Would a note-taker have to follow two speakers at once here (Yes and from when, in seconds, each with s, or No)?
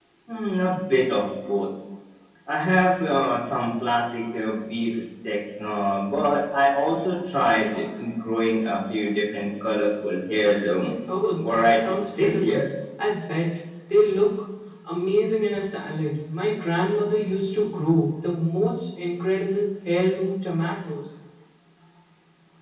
Yes, from 11.4 s